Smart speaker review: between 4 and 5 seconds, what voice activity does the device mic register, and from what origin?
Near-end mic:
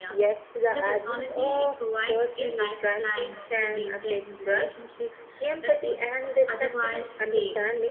both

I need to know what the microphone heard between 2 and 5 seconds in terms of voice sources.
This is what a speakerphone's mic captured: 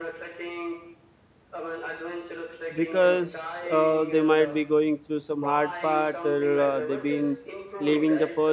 both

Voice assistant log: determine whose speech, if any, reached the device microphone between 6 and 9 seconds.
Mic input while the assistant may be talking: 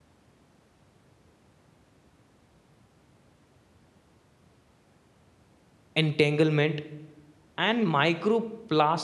user only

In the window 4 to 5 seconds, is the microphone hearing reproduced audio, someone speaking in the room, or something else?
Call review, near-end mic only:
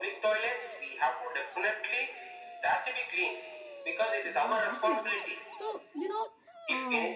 both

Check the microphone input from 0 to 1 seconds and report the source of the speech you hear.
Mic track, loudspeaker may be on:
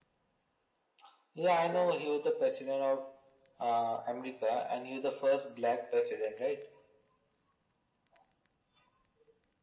neither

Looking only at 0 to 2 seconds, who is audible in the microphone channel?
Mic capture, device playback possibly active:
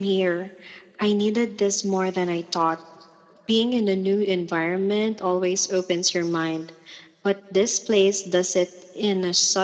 echo only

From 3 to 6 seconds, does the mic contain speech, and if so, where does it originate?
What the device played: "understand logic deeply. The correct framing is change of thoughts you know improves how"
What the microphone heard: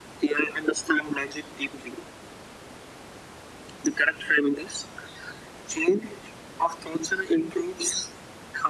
echo only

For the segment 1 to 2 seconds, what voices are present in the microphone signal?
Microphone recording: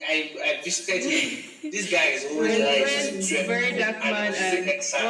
echo only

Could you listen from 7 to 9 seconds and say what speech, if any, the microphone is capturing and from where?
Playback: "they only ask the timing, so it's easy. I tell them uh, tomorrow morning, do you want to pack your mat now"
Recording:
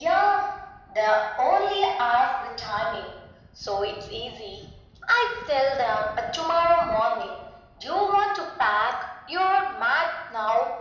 echo only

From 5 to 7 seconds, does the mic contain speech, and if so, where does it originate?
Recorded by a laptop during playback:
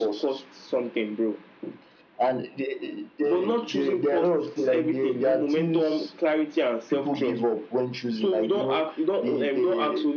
echo only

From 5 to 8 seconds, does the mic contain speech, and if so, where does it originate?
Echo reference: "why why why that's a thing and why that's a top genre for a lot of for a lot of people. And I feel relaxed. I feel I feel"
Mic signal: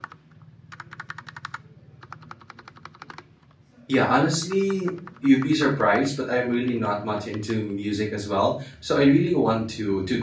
user only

